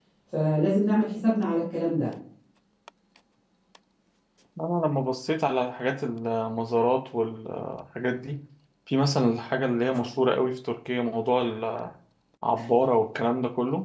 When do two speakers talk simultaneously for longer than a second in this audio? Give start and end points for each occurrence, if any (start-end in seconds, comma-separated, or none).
none